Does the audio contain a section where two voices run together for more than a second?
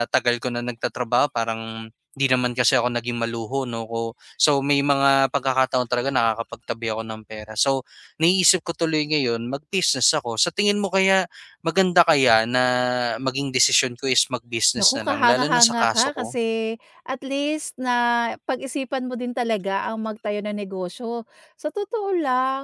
Yes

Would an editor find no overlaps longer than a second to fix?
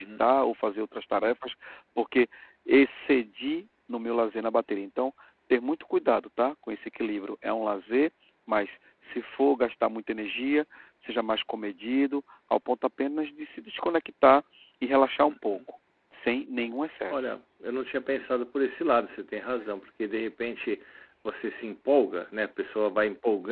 Yes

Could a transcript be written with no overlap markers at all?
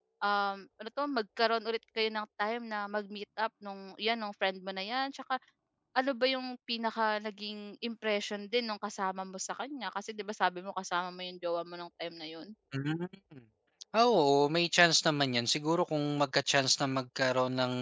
Yes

